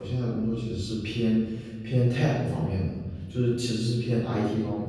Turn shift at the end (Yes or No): No